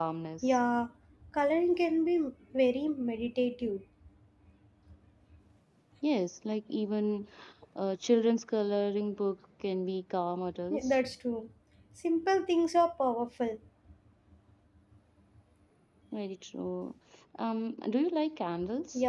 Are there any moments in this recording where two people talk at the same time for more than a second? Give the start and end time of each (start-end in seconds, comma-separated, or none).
none